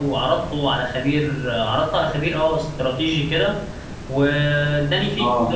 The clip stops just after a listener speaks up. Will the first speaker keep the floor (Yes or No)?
Yes